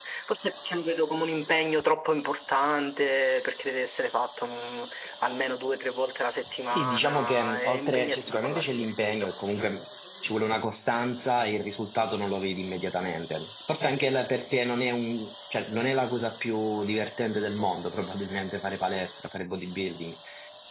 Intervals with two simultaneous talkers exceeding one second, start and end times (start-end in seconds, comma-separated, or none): 6.7-9.3